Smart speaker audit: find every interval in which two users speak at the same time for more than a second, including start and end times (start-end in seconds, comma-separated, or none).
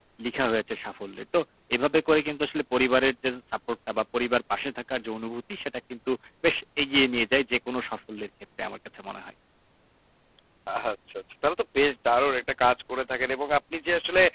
none